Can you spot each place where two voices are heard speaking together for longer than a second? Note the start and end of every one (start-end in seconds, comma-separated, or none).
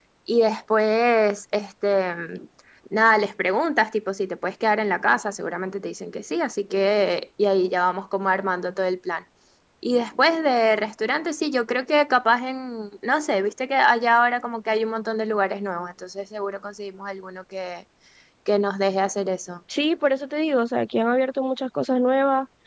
none